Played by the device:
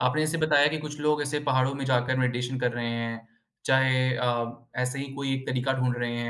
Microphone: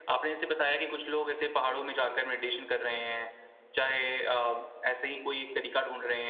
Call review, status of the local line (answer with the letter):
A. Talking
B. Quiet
B